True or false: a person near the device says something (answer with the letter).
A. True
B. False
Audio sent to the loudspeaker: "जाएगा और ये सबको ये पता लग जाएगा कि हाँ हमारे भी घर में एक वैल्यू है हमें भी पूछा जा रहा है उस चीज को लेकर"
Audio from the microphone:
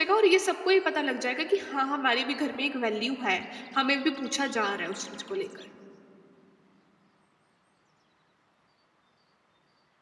B